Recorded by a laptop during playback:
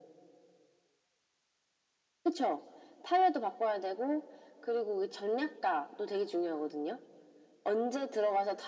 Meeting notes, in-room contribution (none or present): none